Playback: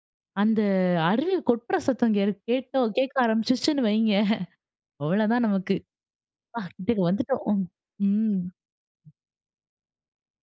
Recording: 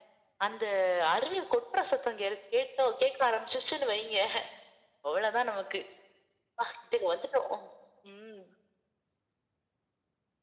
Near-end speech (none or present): none